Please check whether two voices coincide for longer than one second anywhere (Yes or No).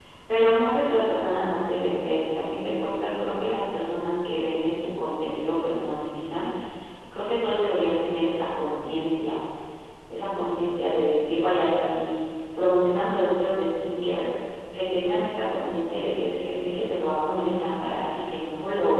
No